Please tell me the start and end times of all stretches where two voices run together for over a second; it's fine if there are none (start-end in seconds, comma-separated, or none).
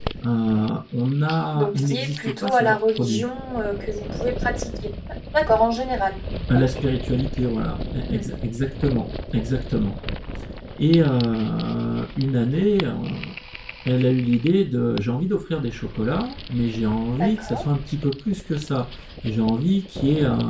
1.5-3.2